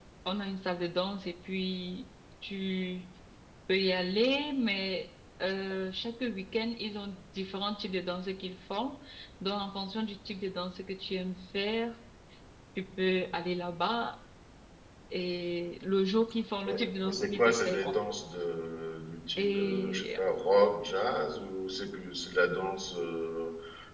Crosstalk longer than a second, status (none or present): present